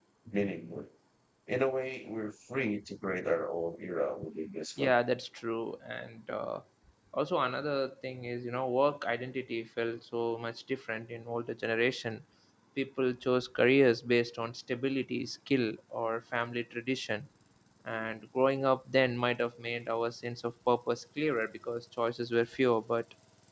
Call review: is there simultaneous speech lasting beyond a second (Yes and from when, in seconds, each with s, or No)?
No